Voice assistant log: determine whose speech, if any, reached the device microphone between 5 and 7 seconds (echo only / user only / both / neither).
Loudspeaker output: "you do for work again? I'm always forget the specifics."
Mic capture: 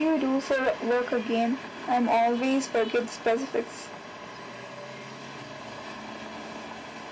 neither